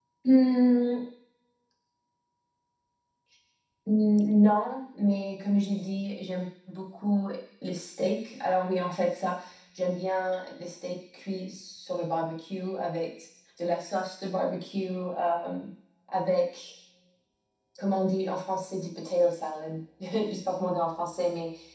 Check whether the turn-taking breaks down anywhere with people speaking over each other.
No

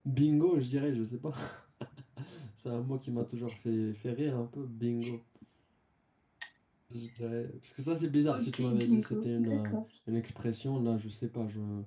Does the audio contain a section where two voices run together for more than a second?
Yes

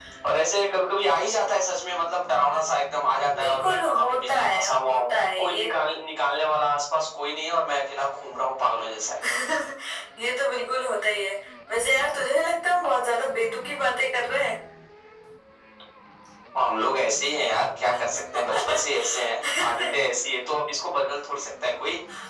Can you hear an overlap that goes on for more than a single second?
Yes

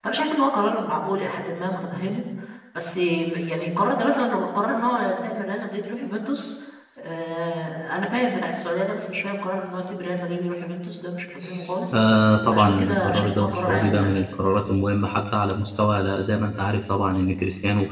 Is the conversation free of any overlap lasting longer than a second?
No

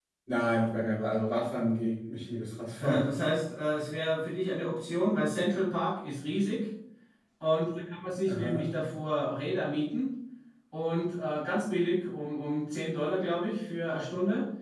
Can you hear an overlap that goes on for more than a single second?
No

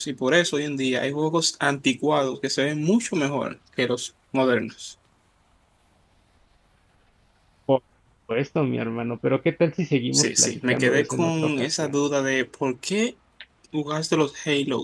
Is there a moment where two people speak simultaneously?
Yes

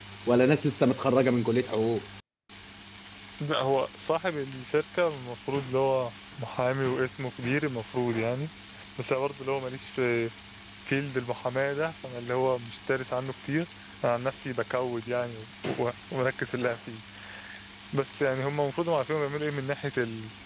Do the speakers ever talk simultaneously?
No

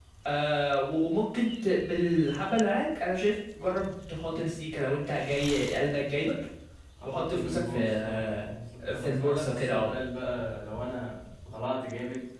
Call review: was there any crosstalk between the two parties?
Yes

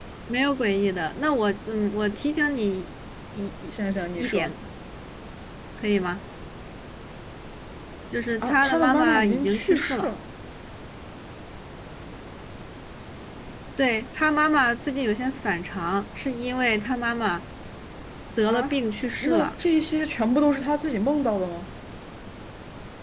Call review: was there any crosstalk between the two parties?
Yes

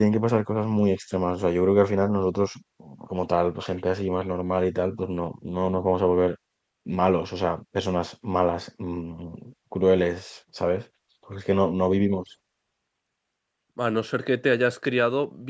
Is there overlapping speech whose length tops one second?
No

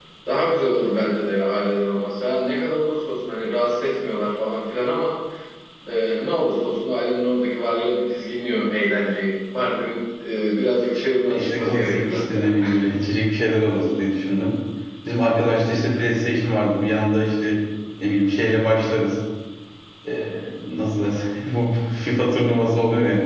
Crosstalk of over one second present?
Yes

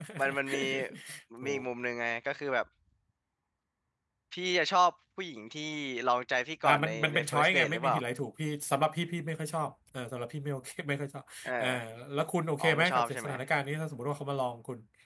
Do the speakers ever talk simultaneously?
Yes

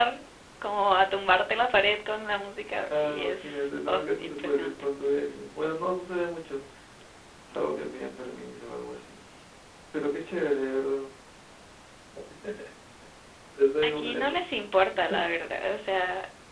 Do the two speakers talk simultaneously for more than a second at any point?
Yes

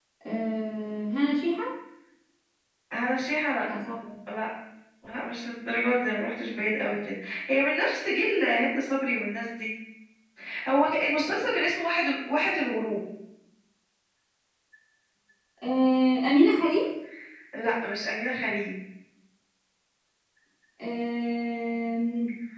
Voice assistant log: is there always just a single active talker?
Yes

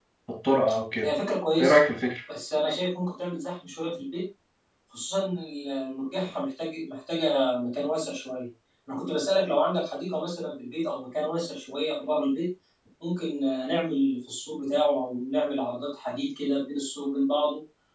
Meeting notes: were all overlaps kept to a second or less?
Yes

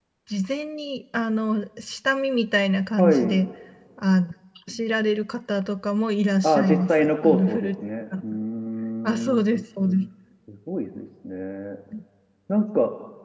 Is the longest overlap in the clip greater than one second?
Yes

